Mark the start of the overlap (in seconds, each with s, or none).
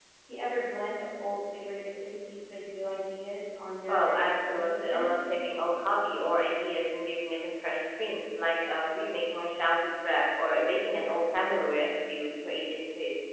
3.9 s